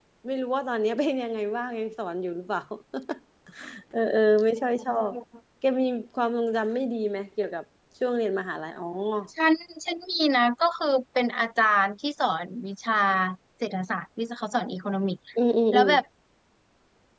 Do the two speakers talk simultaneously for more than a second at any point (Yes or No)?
No